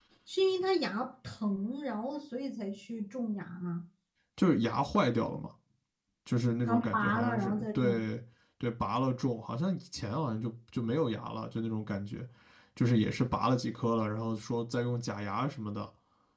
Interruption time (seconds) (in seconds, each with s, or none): 6.7 s